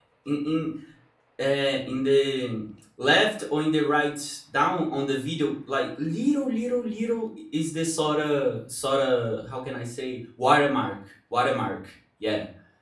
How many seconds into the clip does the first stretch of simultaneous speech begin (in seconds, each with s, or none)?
none